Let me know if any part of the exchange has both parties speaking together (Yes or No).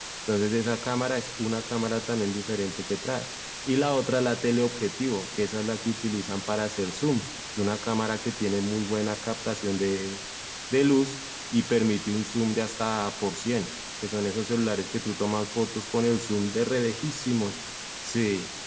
No